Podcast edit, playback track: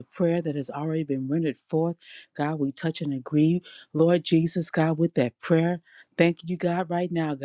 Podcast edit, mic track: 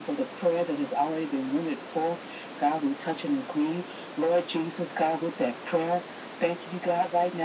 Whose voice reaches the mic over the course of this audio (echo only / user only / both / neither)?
echo only